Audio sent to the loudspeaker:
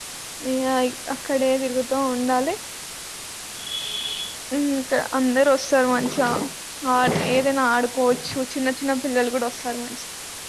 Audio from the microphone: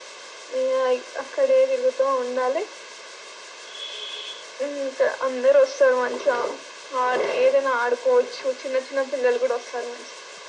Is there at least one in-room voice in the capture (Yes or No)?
No